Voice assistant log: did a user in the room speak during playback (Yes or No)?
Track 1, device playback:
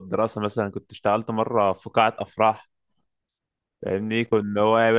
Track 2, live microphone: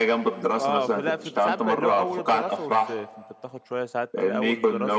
Yes